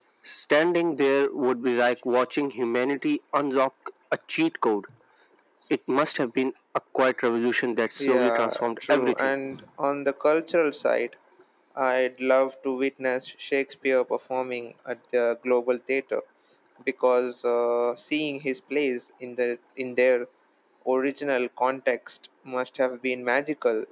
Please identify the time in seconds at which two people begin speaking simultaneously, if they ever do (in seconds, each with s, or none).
8.0 s